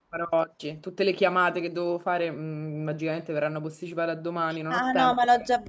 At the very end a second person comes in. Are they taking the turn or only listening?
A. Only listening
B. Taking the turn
B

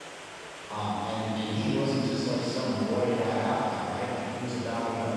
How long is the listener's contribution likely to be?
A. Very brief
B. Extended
A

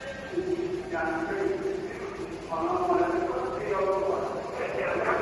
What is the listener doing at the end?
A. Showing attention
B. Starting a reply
B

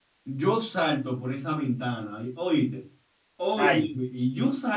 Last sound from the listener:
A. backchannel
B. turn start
A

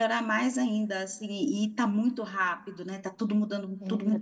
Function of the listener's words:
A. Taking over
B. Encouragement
A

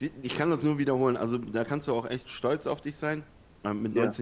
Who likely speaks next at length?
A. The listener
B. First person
B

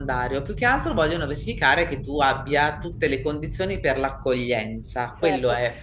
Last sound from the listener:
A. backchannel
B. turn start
B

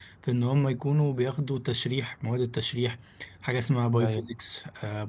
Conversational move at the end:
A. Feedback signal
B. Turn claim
A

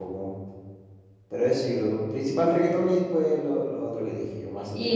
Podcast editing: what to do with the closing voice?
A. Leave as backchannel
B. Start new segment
B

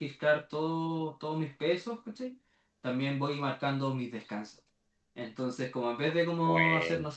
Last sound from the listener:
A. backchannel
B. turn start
A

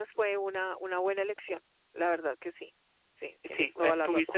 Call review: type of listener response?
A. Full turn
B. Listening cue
A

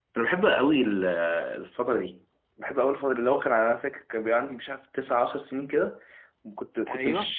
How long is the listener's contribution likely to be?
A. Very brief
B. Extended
A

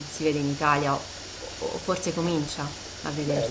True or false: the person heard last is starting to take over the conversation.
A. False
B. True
B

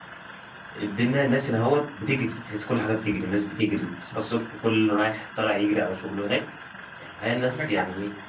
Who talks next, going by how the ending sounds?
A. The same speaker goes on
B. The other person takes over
A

